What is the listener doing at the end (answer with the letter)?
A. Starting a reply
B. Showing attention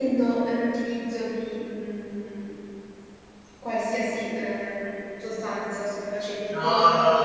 A